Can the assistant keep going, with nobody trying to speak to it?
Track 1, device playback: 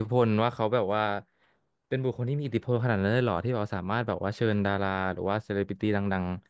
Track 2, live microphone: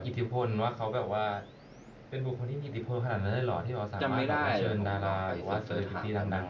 No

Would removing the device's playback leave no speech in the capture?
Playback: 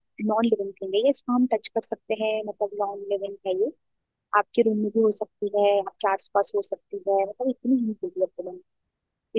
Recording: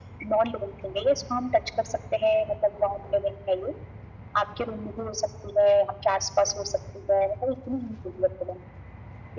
Yes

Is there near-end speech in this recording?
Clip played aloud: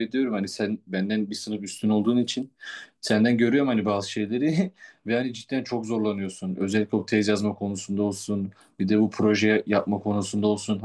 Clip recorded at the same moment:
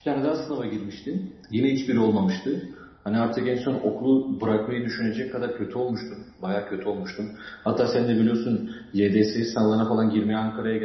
Yes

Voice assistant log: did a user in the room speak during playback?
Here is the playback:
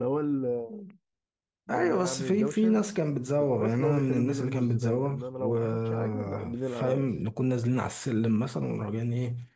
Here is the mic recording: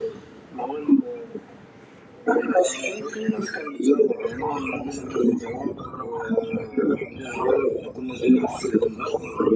No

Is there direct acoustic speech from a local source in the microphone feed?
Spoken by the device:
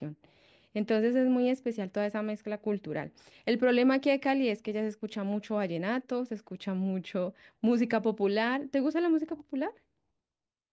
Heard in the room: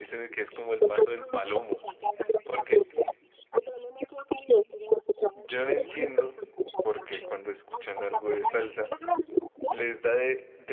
Yes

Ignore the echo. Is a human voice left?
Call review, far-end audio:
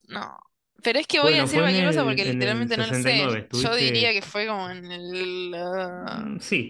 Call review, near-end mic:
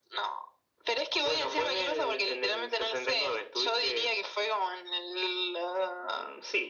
No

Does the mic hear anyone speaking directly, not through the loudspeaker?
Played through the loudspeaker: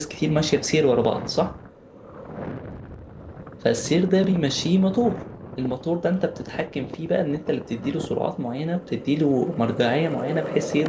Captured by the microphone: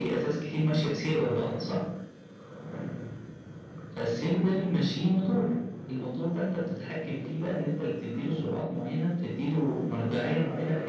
No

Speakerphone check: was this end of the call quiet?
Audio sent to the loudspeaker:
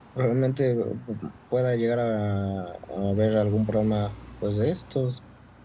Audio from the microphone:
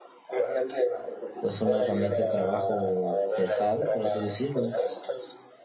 No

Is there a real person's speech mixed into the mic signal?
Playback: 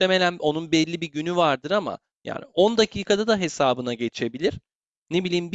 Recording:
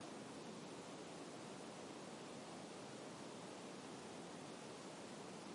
No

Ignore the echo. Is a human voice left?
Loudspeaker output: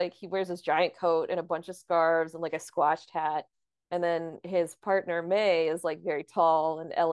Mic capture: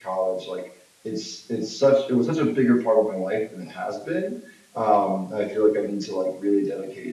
Yes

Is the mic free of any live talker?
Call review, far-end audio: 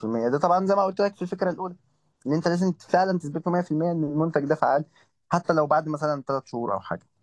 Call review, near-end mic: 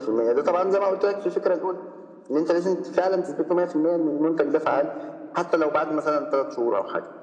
Yes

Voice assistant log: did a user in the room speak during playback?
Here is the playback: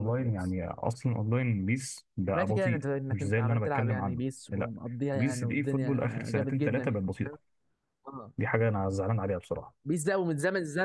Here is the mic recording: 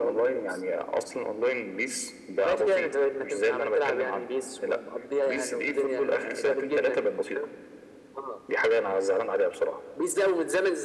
No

